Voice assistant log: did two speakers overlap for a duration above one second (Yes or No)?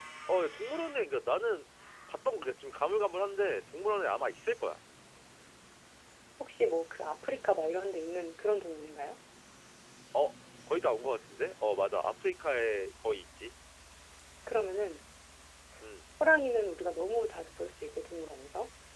No